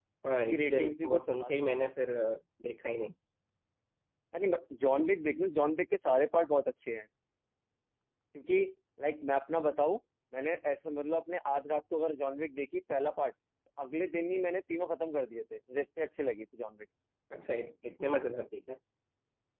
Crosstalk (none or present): present